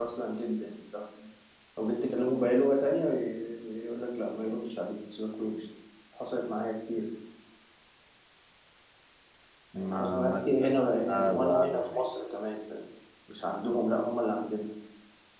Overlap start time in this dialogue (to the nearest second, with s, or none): 10 s